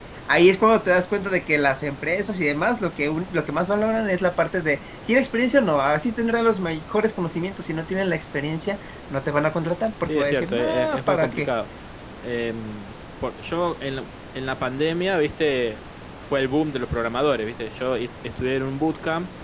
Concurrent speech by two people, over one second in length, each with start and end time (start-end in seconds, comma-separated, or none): 10.0-11.5